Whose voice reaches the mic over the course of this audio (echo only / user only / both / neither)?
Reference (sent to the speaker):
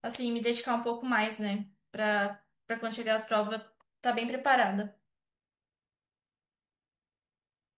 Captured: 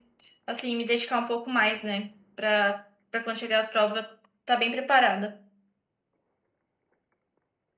echo only